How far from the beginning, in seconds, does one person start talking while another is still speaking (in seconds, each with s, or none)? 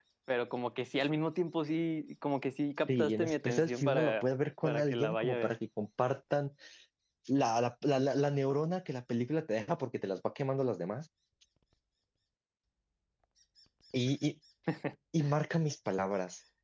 2.9 s